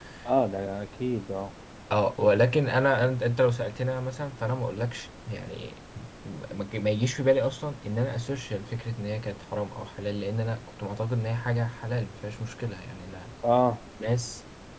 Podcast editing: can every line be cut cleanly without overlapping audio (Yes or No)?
Yes